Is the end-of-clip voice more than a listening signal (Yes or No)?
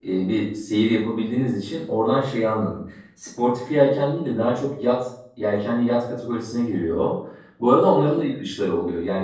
No